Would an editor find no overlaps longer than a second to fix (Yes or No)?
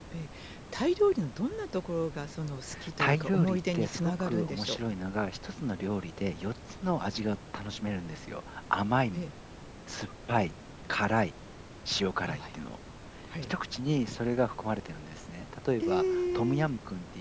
No